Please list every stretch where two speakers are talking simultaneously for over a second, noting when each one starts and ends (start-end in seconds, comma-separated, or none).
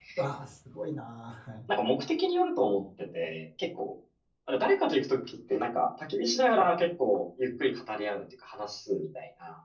none